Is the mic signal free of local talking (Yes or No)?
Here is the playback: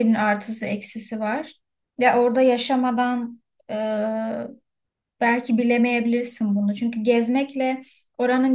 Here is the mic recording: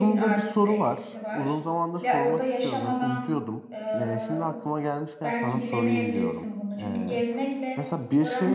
No